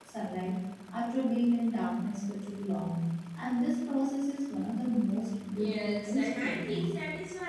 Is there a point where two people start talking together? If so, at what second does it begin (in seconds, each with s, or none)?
5.5 s